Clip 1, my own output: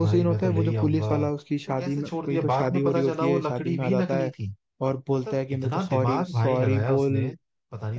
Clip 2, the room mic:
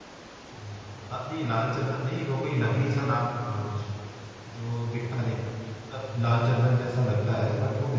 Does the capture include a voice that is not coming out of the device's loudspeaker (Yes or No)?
Yes